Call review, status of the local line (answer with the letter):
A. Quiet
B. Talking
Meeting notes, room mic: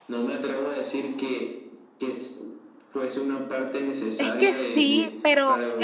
B